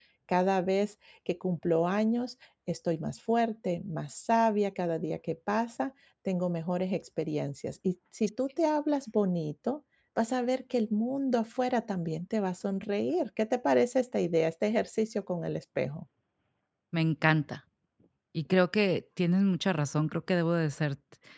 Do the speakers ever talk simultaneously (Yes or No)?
No